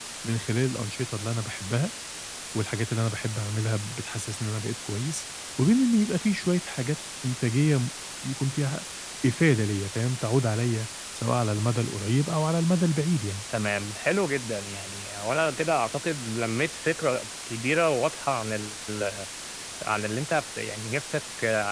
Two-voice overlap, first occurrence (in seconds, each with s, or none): none